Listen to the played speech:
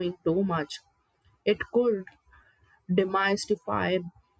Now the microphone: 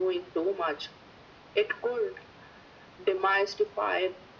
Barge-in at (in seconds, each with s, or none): none